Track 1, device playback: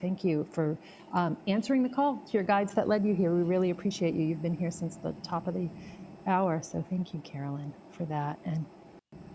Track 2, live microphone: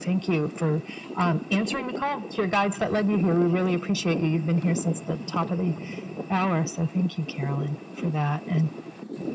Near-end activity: none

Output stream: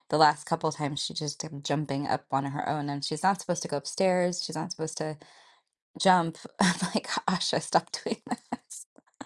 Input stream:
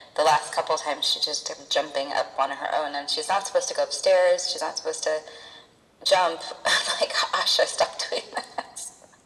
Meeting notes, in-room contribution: none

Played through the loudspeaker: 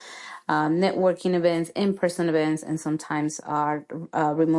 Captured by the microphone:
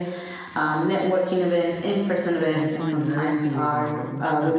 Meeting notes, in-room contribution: present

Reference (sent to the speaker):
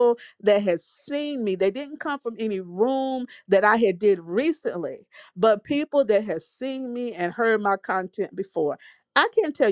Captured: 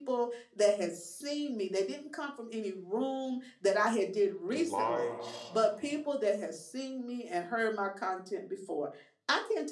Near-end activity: present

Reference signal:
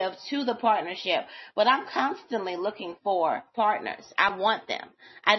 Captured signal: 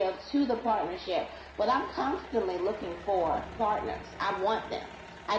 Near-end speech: none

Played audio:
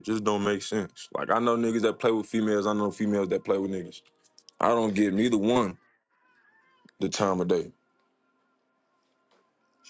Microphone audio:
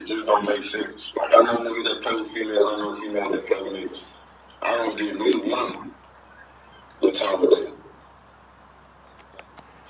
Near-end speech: none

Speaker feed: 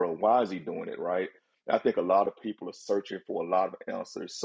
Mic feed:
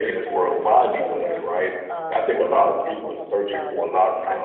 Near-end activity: present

